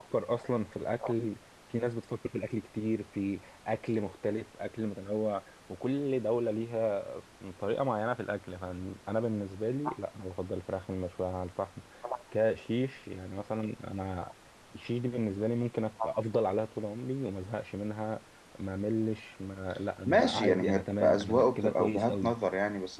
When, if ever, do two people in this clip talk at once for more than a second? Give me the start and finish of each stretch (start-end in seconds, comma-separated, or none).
20.1-22.3